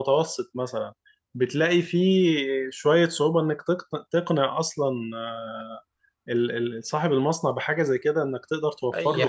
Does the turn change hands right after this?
Yes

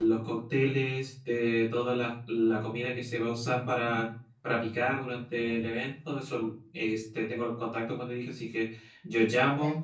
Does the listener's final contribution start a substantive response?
No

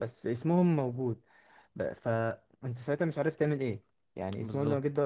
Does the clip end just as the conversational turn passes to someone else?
No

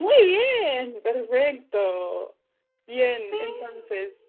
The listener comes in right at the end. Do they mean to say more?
No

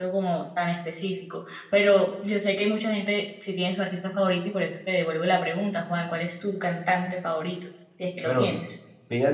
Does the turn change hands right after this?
Yes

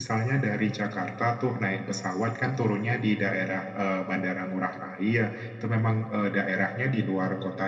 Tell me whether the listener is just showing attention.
Yes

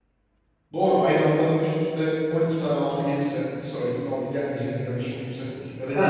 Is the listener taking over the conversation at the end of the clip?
Yes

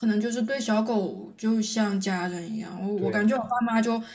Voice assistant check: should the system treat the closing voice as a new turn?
No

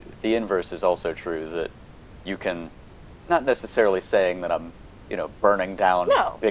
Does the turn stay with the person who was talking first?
Yes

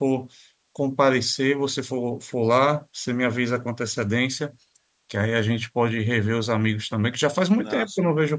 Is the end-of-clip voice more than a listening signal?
No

